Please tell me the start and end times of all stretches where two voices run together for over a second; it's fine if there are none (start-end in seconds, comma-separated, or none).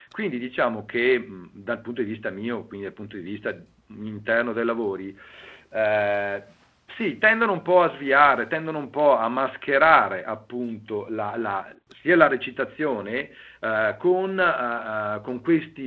none